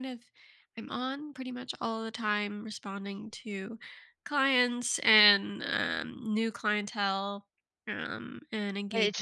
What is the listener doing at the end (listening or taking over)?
taking over